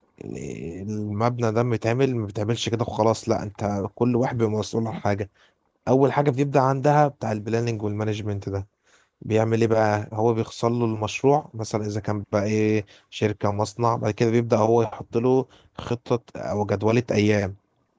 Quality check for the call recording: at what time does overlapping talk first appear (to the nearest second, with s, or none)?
none